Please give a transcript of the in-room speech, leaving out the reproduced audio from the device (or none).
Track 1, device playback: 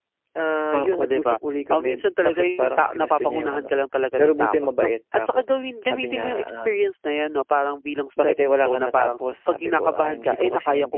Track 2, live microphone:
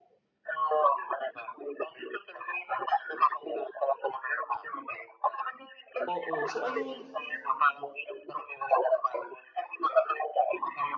Oo. So ayun,